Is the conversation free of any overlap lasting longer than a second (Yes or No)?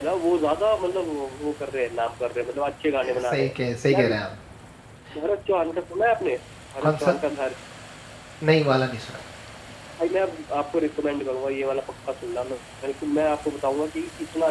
Yes